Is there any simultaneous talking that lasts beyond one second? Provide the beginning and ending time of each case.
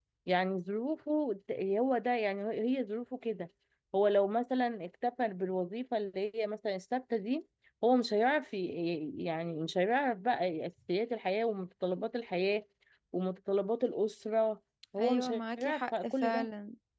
15.0-16.5

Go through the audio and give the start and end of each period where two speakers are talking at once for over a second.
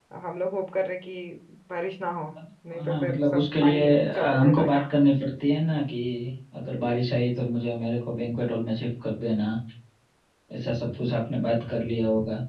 2.7-4.8

